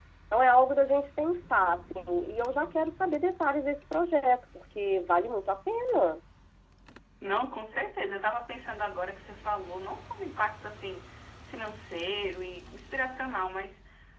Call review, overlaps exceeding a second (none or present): none